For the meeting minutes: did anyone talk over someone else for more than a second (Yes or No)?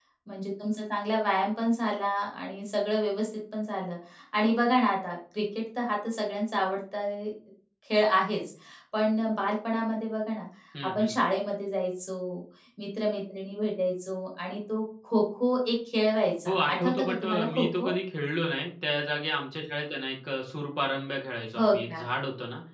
Yes